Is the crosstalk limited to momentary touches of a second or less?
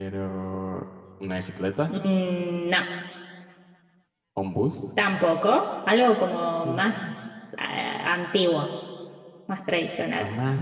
Yes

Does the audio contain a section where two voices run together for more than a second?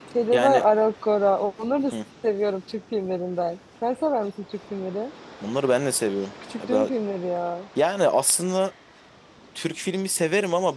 No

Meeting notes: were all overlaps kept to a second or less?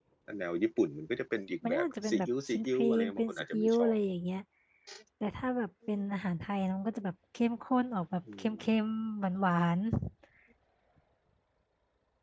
No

